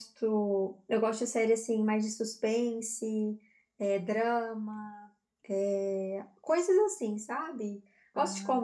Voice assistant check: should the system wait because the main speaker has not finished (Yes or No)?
Yes